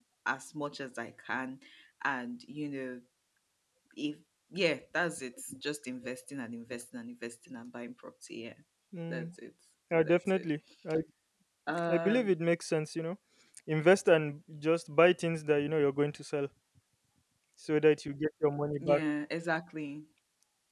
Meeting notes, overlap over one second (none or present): none